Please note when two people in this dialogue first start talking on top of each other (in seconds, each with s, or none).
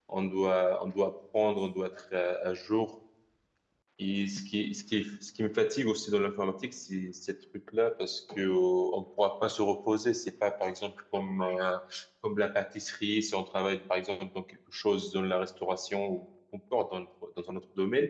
none